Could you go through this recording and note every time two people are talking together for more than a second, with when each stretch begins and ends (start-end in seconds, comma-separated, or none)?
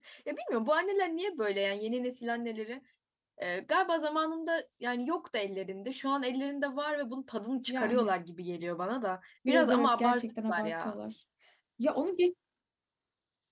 9.5-11.0